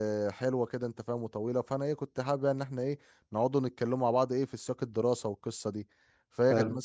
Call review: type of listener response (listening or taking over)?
listening